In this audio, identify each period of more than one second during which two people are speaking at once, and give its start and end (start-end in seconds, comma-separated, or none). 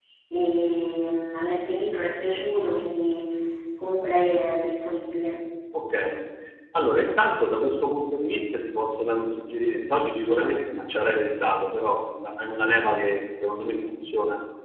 none